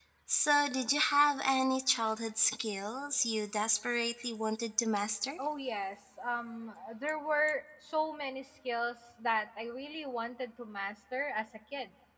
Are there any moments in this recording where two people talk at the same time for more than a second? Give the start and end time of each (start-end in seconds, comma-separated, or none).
none